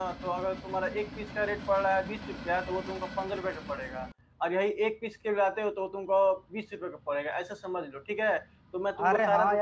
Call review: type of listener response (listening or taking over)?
taking over